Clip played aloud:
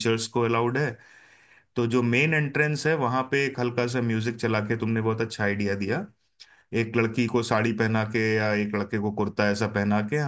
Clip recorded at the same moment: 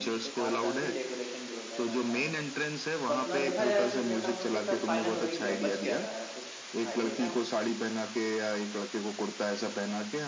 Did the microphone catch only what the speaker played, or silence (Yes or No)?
No